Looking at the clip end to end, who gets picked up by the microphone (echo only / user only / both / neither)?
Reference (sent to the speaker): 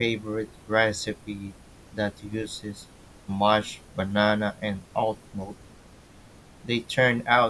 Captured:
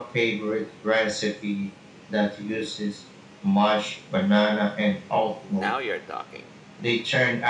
both